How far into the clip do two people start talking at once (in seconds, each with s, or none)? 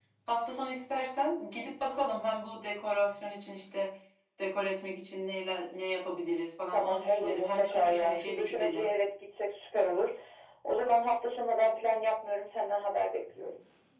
6.7 s